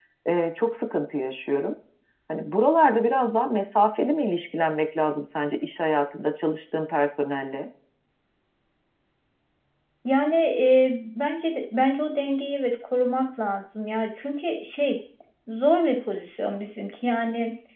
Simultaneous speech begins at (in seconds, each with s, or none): none